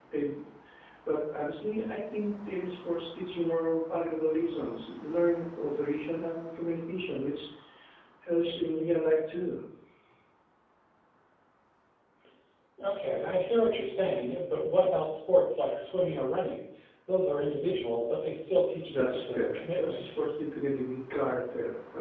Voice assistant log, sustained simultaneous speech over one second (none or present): present